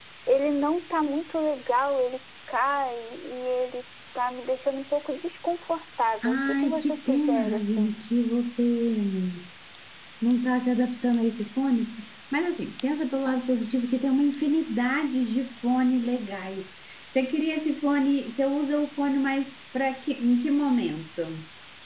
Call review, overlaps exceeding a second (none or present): present